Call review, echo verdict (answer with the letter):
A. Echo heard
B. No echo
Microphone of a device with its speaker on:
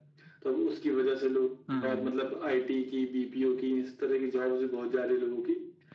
A